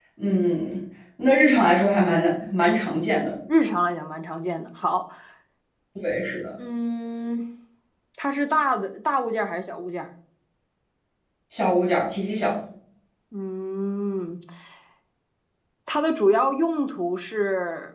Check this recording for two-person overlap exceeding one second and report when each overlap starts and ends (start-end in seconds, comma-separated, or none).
none